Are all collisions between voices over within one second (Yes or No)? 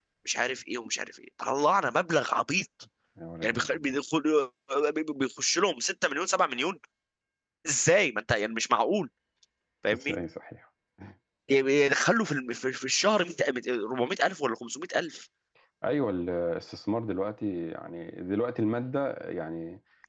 Yes